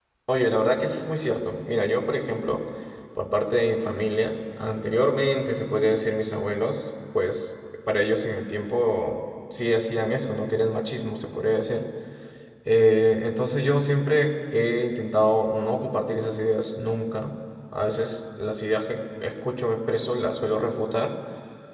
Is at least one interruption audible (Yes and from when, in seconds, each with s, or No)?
No